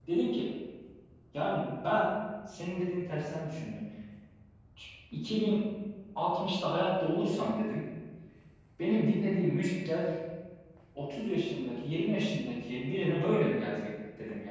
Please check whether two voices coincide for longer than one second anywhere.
No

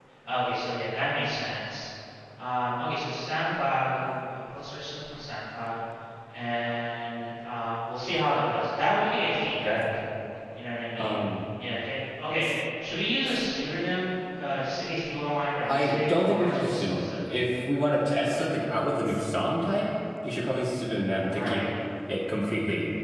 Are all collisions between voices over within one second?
No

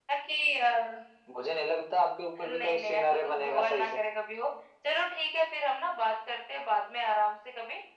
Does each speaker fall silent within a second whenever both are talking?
No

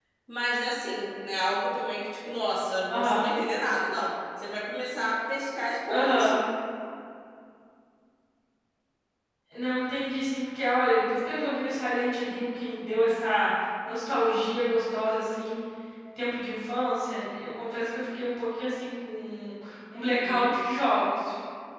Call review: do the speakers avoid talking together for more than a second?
Yes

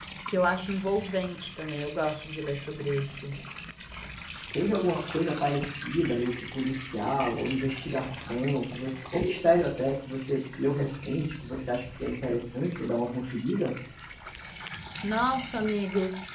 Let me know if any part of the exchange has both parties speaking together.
No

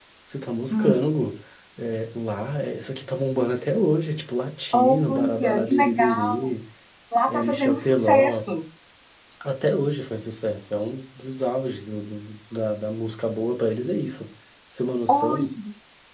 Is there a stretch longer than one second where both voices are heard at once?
Yes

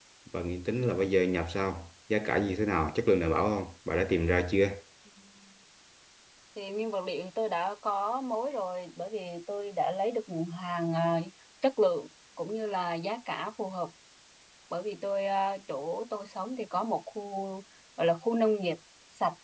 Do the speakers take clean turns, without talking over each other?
Yes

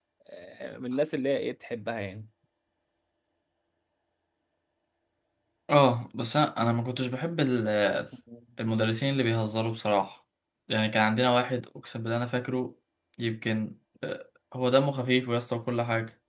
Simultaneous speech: No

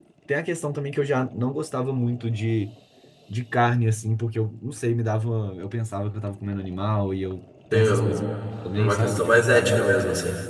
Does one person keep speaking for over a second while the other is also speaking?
Yes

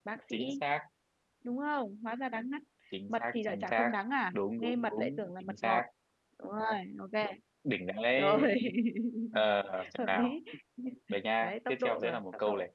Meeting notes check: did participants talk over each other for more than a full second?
Yes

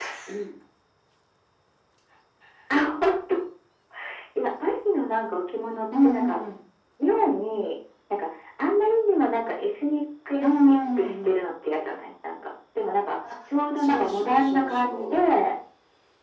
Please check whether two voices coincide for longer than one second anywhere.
Yes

